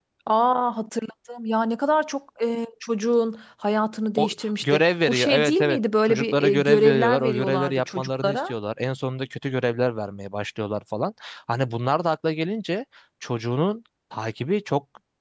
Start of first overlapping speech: 4.2 s

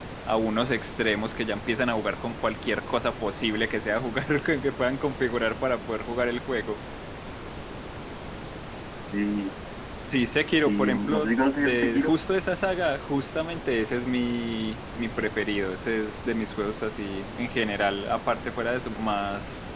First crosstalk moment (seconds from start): 10.5 s

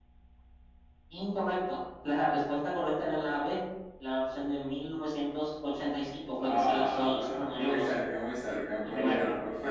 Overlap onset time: 6.4 s

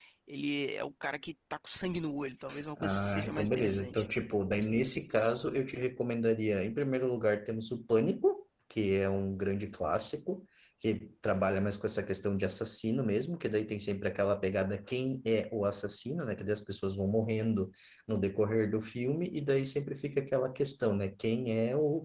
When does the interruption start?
2.8 s

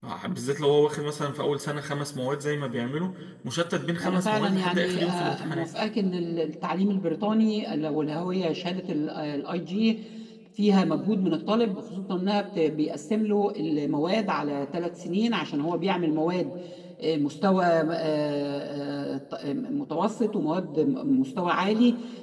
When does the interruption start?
4.0 s

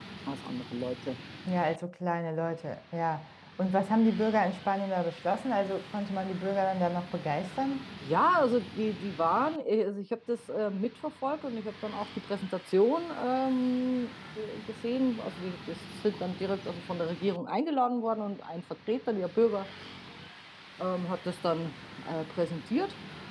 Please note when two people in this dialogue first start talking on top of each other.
none

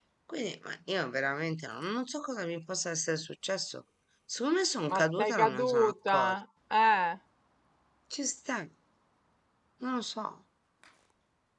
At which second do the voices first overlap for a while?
4.9 s

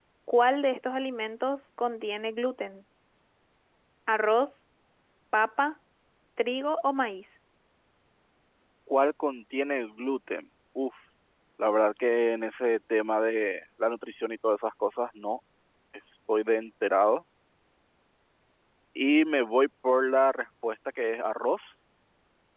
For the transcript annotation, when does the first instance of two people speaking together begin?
none

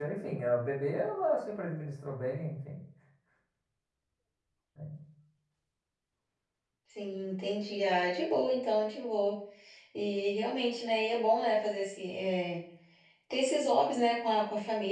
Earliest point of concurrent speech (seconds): none

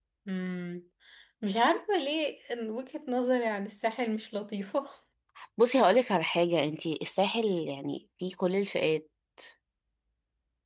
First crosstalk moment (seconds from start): none

